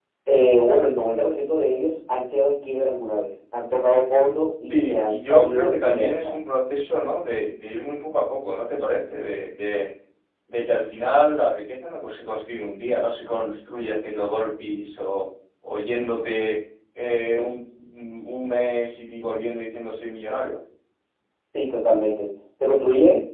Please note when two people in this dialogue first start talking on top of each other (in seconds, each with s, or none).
4.7 s